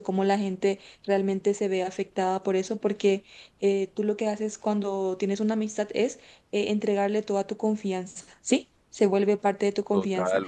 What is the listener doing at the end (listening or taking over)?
taking over